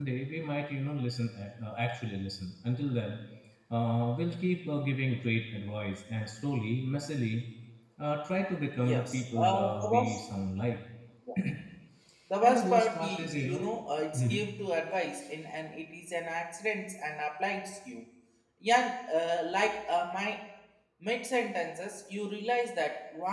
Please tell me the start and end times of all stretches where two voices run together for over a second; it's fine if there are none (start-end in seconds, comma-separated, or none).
8.8-10.2, 12.4-13.7